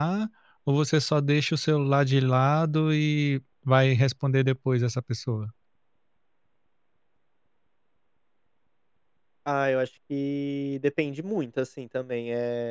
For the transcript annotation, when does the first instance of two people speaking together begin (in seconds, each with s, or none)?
none